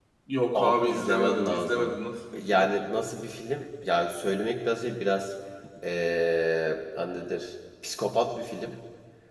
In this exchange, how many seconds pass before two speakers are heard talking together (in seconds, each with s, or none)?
0.6 s